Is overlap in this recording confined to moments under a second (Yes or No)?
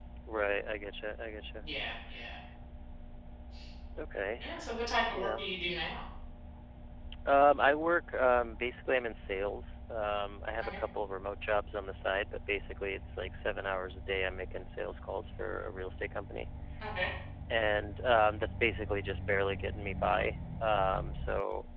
Yes